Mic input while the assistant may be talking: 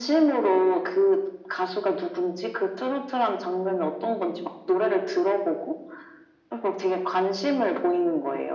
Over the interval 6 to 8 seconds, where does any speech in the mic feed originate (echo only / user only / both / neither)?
echo only